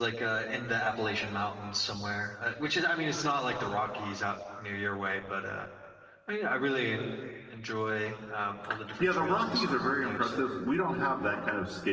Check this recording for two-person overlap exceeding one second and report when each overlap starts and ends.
9.0-10.4

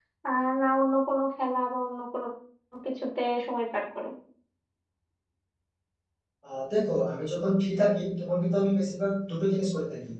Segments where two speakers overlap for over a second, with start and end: none

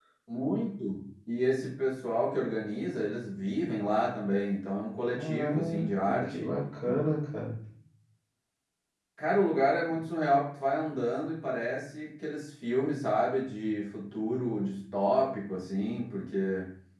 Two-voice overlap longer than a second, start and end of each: 5.2-6.5

